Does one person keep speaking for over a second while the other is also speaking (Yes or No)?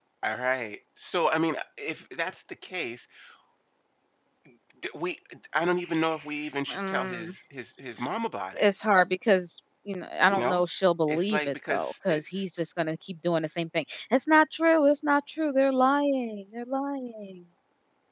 Yes